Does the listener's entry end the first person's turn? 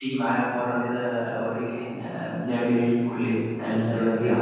Yes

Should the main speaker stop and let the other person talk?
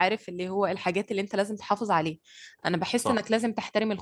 No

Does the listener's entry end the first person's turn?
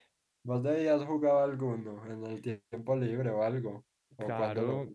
Yes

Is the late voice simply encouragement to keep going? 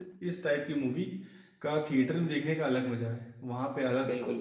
Yes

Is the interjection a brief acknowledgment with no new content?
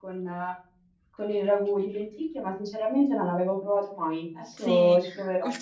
No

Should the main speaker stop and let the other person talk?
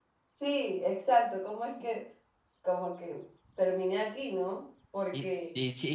Yes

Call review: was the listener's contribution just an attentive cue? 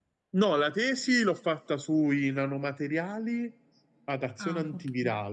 Yes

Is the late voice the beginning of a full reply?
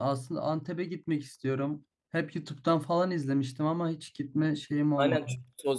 Yes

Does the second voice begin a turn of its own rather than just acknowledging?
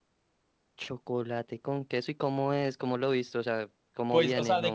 Yes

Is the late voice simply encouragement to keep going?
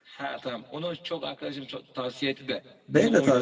No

